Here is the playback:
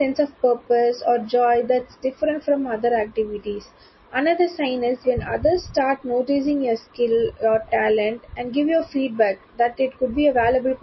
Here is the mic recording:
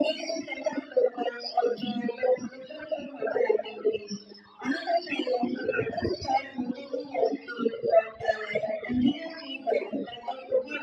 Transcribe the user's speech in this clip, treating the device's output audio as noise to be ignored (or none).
none